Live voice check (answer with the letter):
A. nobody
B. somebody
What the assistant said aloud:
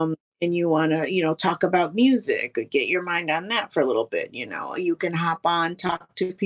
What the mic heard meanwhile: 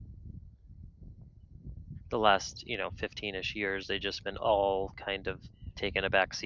B